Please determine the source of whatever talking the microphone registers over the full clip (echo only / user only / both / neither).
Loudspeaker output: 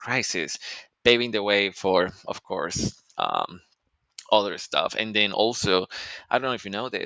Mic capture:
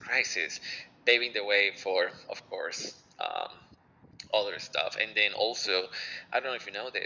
echo only